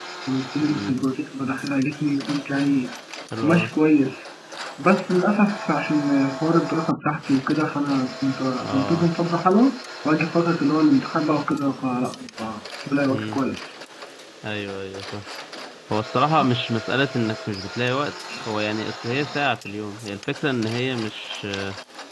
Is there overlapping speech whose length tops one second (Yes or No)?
No